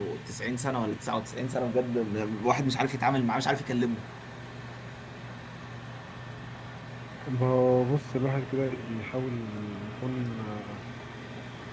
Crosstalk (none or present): none